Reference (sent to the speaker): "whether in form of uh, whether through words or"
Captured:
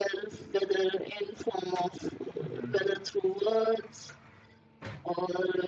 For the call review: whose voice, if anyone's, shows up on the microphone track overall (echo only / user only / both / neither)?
both